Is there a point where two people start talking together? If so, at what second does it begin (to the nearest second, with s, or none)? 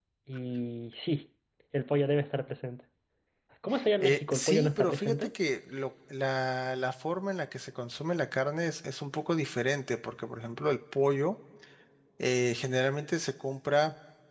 4 s